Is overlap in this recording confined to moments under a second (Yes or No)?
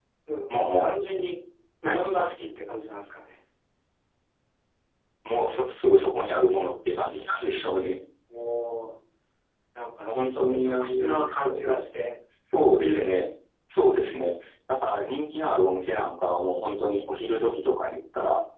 No